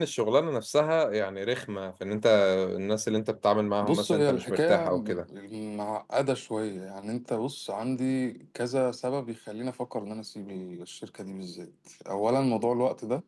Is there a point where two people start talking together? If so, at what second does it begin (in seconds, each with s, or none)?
3.8 s